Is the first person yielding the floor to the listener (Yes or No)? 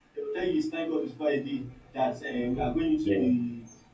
No